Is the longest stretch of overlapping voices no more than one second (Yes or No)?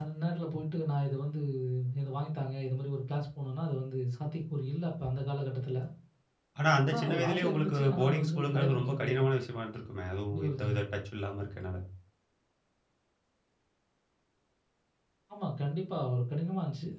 No